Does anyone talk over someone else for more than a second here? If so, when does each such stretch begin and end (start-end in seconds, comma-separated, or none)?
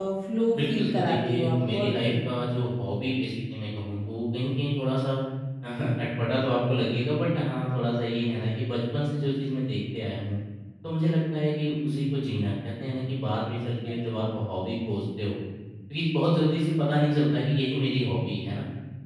0.6-2.3